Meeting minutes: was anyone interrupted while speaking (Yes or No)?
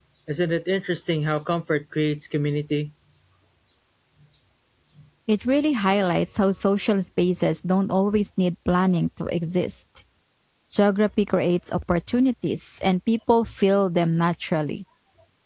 No